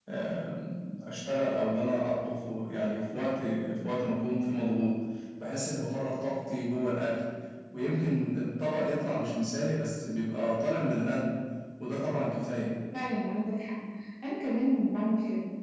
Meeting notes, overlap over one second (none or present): none